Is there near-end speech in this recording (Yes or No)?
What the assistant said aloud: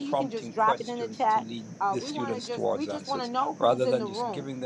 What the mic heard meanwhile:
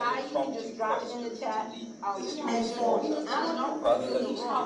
Yes